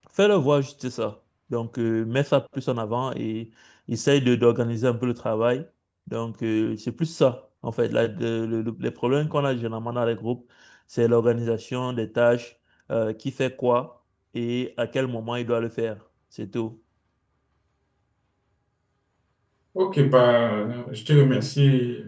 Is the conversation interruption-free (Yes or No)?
Yes